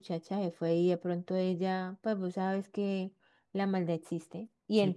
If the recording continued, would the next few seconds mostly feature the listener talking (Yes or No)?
No